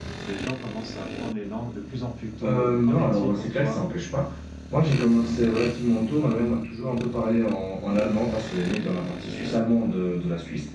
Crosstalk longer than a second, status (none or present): present